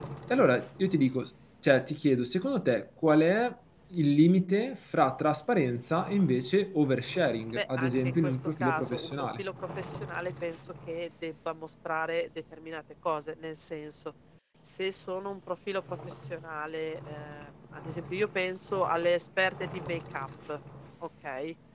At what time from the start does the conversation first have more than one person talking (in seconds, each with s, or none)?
7.5 s